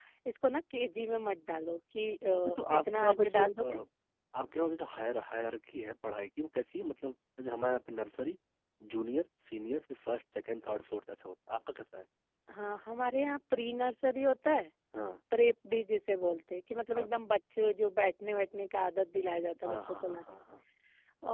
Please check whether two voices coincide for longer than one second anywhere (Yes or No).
Yes